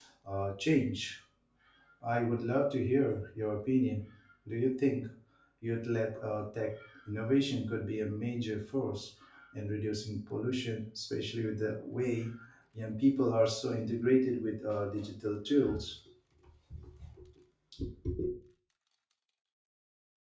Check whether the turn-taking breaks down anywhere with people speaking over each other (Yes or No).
No